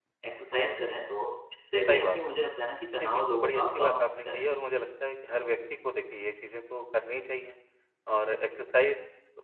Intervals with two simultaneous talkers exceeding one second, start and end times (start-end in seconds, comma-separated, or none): 3.0-4.4